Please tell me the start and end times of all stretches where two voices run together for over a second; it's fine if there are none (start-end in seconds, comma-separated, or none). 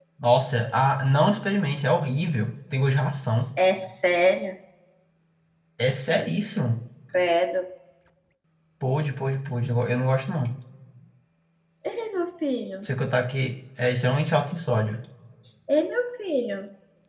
none